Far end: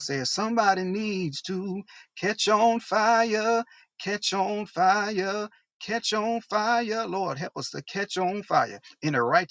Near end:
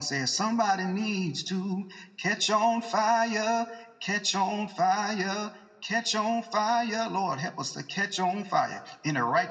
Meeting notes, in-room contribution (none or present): none